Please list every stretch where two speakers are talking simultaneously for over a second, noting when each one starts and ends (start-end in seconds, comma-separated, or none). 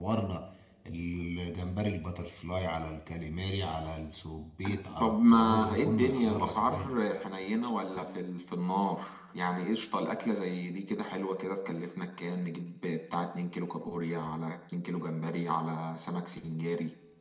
5.0-6.9